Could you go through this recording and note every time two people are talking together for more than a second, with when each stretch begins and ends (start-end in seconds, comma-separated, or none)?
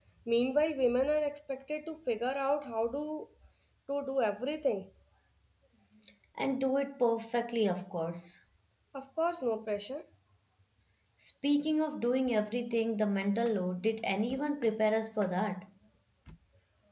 none